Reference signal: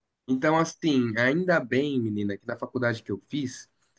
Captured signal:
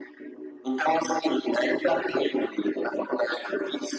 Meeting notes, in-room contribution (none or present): none